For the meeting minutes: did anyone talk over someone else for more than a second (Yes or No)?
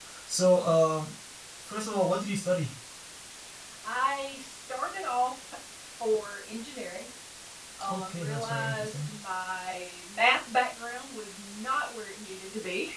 Yes